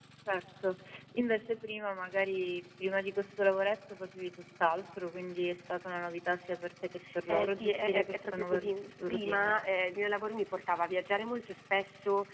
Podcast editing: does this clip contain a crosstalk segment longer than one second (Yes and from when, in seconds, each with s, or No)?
Yes, from 7.0 s